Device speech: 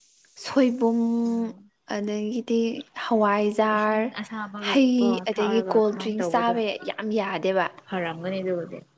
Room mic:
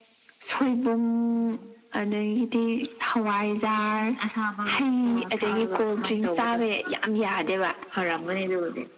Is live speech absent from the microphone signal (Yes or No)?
Yes